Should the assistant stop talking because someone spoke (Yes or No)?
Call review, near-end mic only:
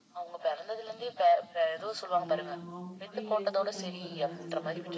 Yes